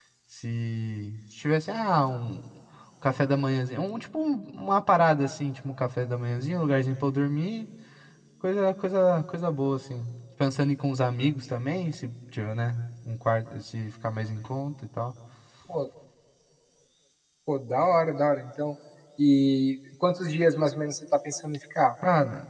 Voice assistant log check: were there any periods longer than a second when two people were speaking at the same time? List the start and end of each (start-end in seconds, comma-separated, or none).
none